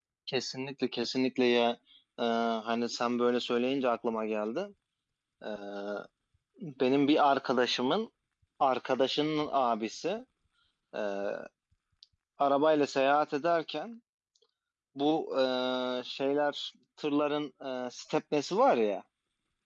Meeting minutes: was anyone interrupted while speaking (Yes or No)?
No